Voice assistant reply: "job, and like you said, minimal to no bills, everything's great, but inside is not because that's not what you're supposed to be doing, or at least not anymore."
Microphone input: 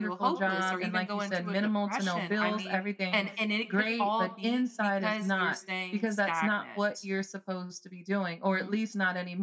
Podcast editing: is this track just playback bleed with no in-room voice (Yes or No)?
No